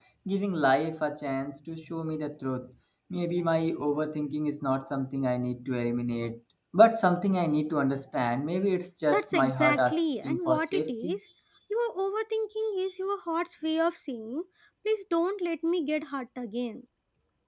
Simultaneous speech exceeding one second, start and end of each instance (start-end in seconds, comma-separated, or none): 9.1-11.2